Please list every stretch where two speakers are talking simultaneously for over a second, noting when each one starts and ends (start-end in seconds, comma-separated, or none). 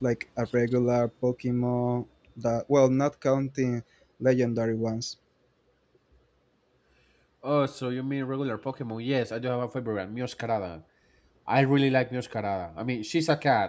none